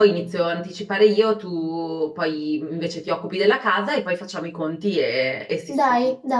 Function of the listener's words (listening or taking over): taking over